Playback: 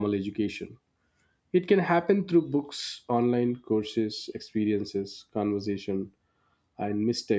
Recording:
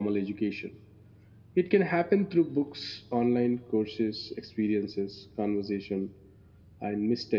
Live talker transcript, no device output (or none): none